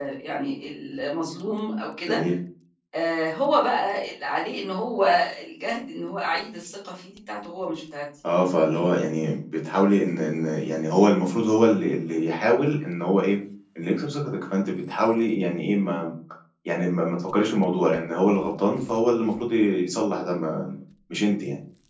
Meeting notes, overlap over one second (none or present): none